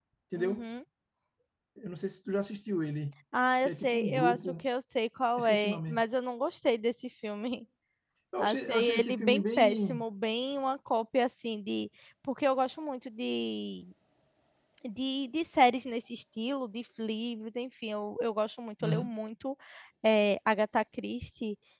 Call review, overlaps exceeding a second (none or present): present